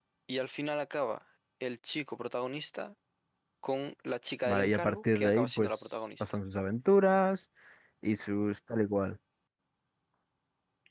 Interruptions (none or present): present